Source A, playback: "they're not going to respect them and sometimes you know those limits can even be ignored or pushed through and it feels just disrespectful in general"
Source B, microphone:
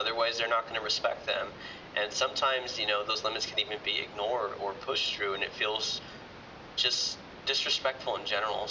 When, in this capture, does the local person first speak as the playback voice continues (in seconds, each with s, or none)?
none